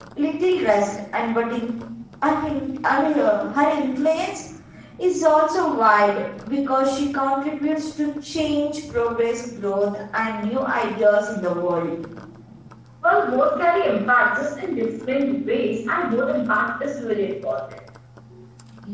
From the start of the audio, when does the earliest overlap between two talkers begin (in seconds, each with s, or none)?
none